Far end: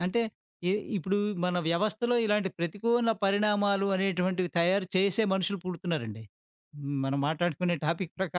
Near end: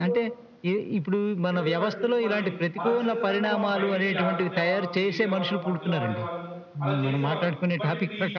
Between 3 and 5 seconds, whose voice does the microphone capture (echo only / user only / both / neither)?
both